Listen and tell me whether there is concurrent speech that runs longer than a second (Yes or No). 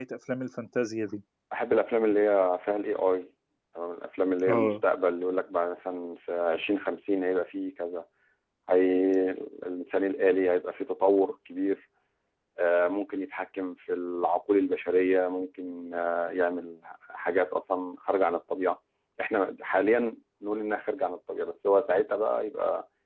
No